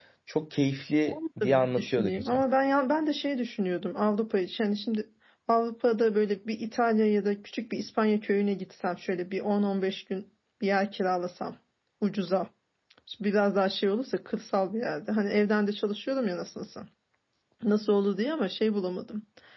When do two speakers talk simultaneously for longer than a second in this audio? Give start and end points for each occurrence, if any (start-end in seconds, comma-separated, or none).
1.0-2.4